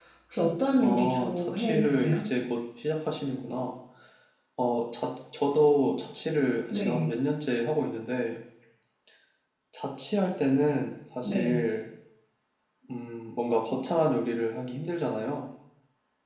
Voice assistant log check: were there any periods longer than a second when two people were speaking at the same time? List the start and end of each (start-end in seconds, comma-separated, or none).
0.8-2.2